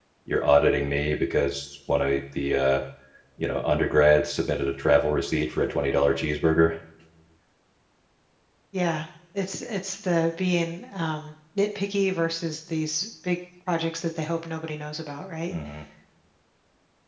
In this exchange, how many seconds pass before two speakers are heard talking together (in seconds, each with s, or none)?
none